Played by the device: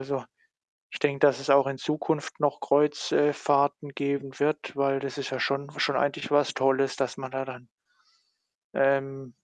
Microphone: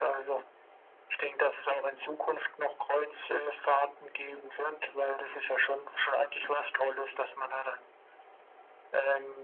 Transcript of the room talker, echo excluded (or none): none